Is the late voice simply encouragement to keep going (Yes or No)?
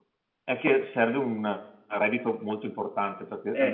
Yes